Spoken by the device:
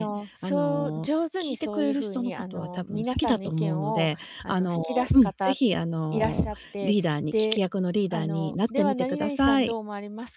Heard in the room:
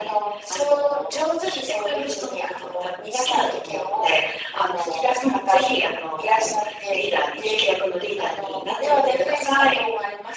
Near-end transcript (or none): none